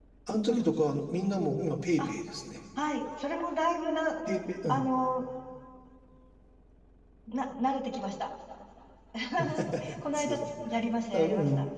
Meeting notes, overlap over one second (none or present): none